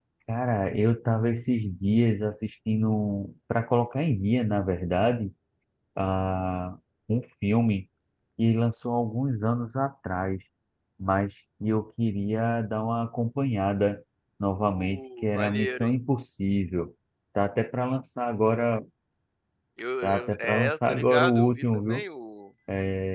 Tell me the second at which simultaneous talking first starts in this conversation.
15 s

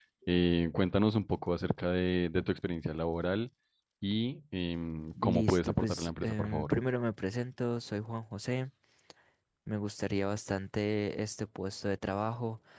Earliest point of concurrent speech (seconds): 5 s

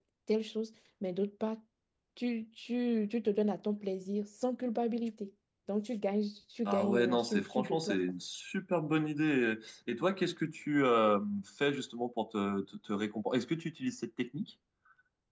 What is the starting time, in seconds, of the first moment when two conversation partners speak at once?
7 s

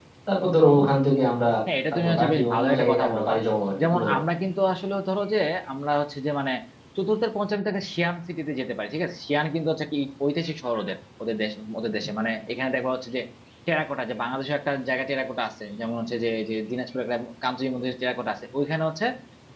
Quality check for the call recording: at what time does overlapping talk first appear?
2 s

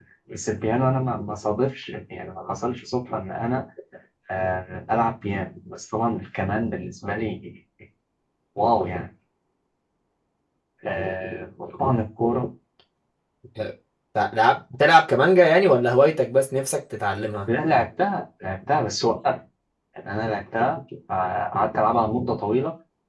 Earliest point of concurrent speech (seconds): none

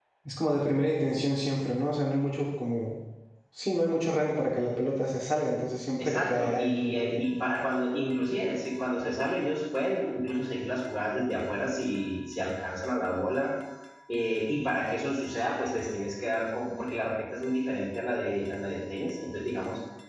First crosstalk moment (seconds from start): 6 s

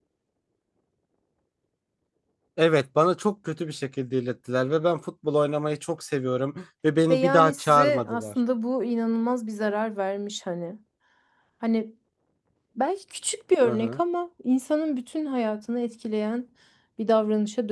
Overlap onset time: 7 s

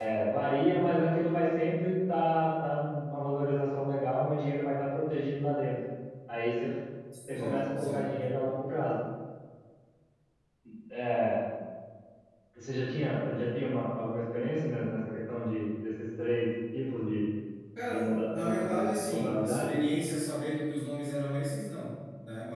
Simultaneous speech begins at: 7 s

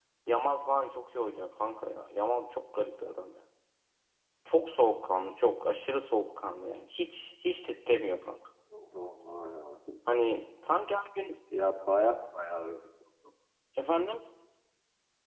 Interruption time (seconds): none

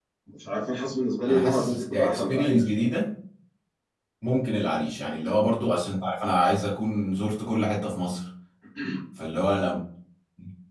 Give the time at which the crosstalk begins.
1 s

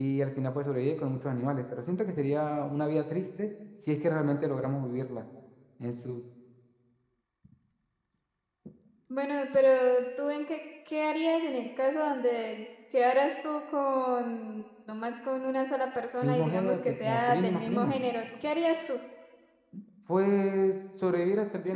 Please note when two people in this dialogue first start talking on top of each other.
16 s

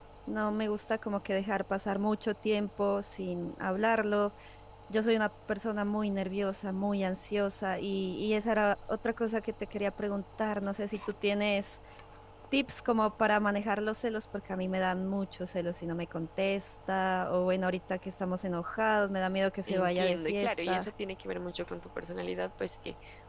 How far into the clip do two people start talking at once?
20 s

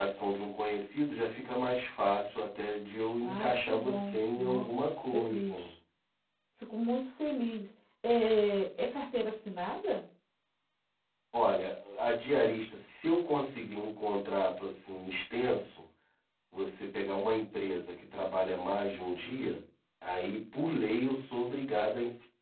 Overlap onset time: 3 s

